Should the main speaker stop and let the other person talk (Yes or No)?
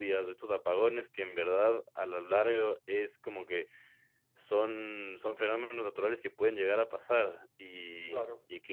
No